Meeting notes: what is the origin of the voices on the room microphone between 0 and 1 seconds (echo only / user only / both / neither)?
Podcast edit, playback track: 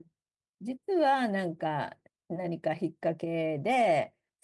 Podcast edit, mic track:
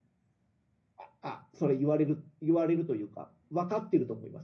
neither